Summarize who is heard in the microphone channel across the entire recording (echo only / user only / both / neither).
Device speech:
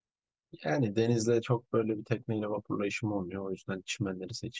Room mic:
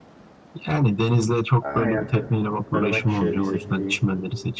both